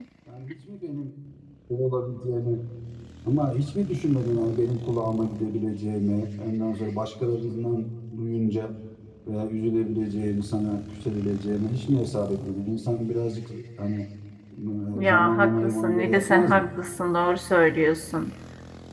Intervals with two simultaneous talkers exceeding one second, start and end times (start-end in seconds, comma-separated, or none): 15.0-16.7